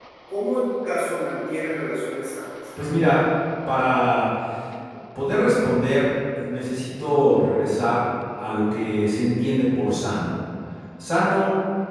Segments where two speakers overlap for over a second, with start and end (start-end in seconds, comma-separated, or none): none